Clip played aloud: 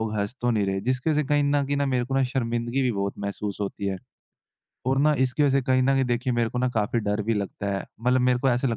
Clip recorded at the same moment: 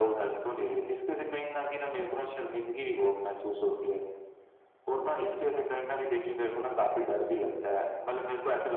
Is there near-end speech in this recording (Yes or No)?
No